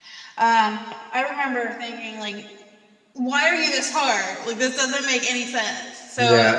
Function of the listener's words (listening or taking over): taking over